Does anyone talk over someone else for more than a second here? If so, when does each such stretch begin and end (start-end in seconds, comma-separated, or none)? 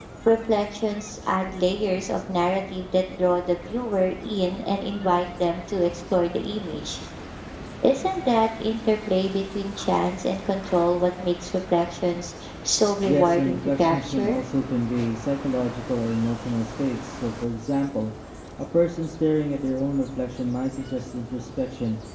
13.1-14.3